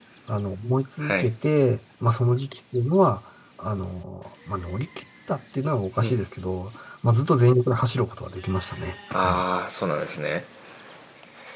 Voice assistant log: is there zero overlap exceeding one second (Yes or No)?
Yes